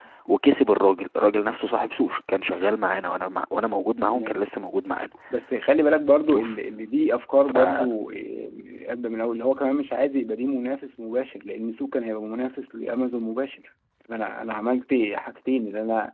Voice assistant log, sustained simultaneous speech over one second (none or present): none